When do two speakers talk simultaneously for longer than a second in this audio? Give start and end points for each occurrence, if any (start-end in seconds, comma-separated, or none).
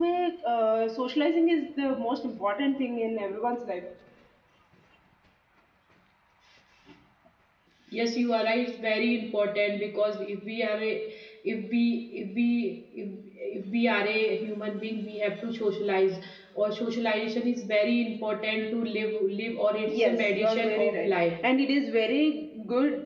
19.9-21.1